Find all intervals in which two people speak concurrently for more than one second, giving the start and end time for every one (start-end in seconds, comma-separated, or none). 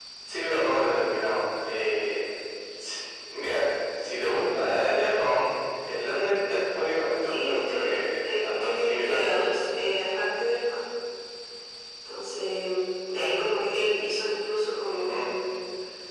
7.2-9.2